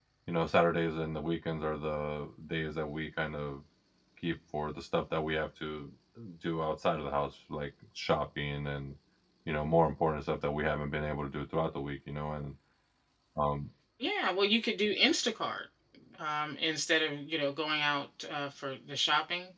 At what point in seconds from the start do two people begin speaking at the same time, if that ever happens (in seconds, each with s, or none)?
none